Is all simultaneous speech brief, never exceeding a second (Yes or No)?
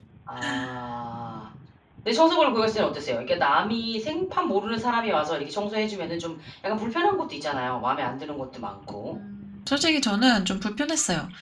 Yes